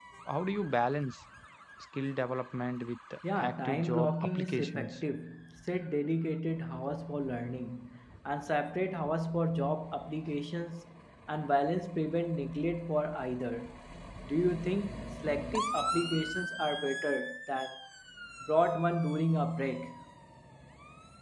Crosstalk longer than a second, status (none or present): present